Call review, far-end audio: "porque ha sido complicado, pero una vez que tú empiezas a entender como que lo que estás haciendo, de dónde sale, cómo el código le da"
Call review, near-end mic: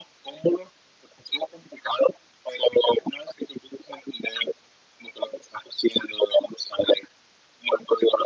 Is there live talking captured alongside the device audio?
No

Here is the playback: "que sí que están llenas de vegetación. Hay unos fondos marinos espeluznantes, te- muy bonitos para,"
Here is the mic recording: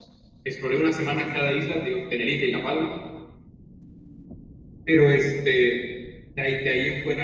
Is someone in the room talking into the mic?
Yes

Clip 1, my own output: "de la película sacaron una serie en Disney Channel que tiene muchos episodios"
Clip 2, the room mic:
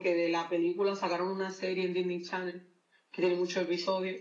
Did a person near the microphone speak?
No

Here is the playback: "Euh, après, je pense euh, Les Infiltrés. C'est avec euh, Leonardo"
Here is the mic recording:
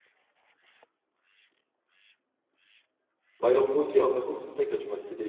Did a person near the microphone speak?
Yes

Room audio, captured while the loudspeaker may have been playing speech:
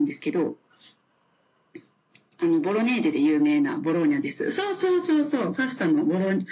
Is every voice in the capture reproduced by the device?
Yes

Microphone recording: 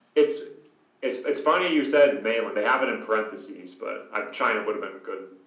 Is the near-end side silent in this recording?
Yes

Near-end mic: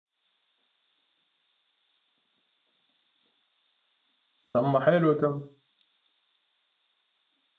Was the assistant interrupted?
Yes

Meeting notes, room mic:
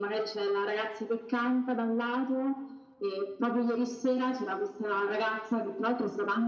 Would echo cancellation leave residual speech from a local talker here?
No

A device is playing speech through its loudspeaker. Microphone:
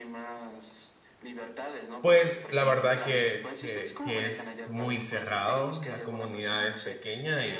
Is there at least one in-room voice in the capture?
Yes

